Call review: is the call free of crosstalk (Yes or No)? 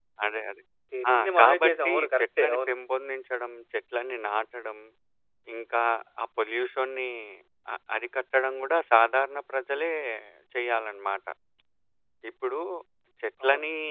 No